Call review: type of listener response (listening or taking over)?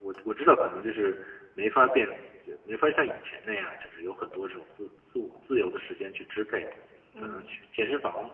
listening